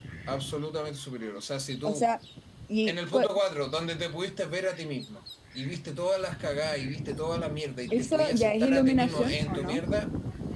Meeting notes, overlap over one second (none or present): present